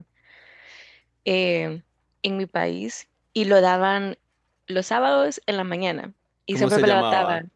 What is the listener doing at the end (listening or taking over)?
taking over